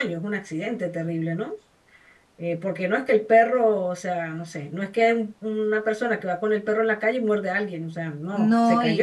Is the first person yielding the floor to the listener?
Yes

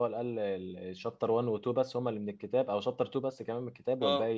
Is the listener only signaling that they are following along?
No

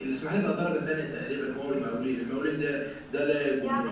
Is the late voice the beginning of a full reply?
Yes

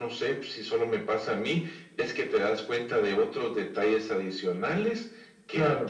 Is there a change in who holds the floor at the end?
No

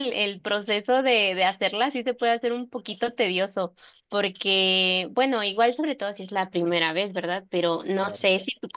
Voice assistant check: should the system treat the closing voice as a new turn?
No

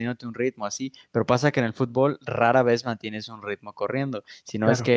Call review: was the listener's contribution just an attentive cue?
Yes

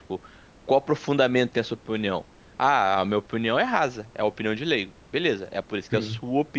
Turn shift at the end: No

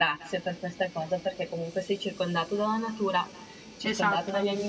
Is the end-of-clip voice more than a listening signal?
No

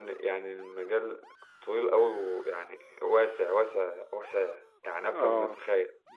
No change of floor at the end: No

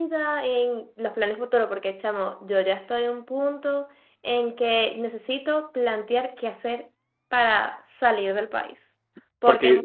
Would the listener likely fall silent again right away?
No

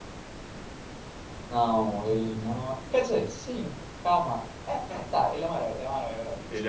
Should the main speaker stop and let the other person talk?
Yes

